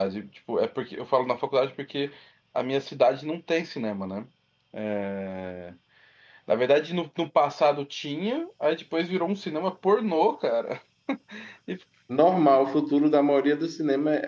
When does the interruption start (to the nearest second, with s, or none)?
none